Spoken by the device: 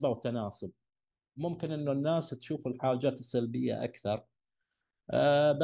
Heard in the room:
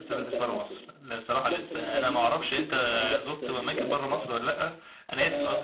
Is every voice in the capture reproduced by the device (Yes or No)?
No